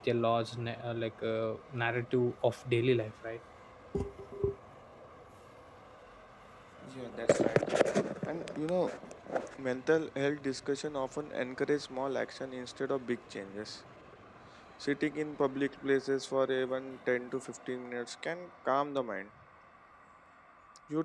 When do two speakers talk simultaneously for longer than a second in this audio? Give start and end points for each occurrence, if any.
none

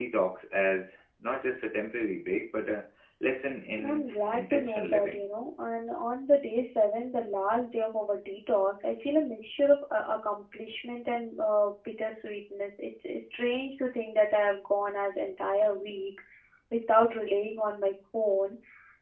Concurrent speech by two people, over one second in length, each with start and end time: 3.8-5.2

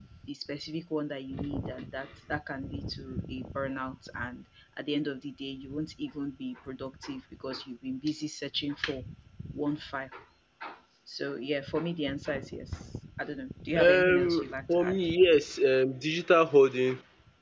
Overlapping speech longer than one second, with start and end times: 13.8-15.0

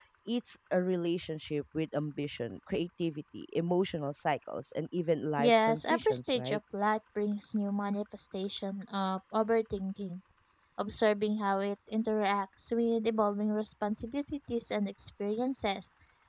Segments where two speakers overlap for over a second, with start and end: 5.4-6.6

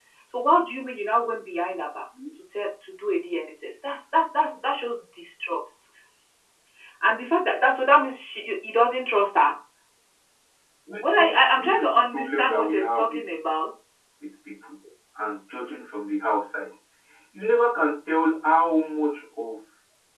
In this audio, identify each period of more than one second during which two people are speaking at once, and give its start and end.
11.0-13.3

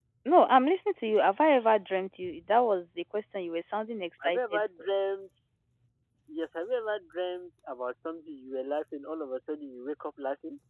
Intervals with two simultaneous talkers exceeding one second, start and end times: none

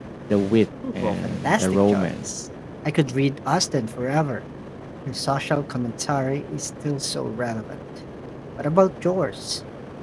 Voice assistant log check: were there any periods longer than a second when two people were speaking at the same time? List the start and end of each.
0.9-2.3

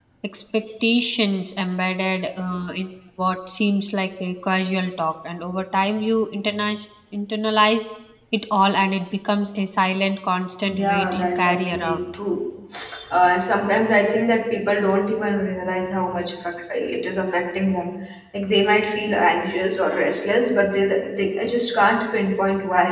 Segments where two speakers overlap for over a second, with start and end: 10.7-12.0

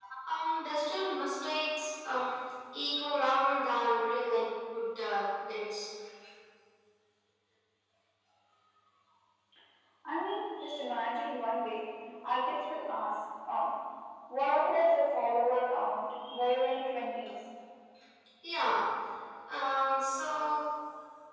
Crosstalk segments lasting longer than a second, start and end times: none

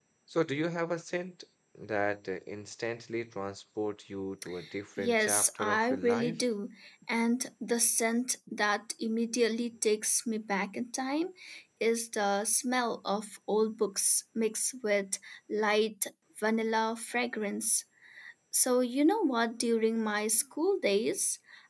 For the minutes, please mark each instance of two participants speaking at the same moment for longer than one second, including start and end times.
5.0-6.4

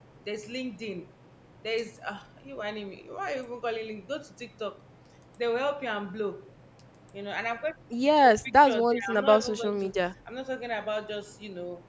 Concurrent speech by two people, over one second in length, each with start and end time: 8.0-10.0

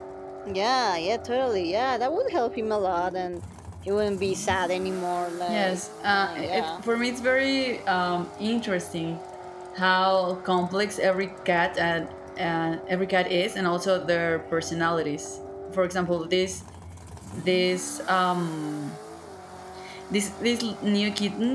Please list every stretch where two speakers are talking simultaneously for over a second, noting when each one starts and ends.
5.5-6.8

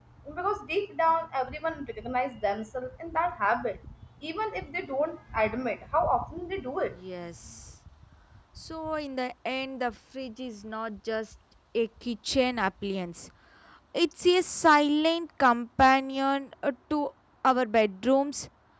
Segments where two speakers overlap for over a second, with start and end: none

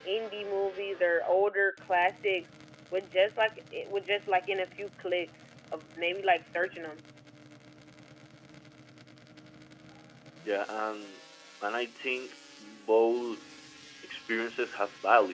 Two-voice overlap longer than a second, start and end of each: none

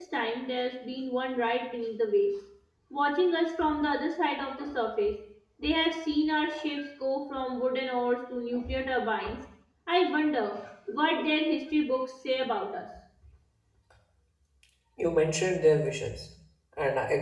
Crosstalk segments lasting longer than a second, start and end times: none

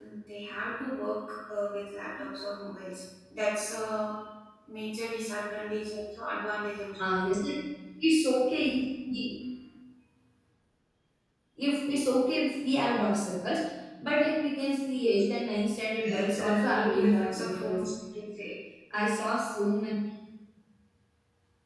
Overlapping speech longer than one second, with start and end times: 16.1-17.8

